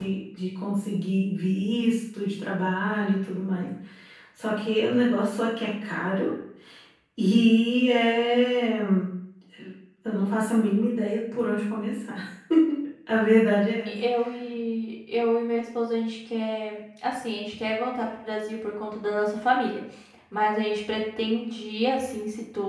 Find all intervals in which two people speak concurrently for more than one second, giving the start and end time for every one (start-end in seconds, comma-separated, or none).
none